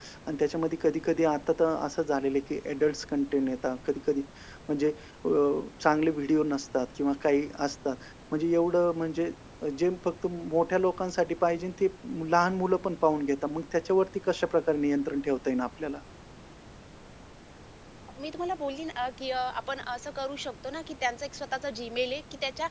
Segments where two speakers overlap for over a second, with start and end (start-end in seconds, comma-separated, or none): none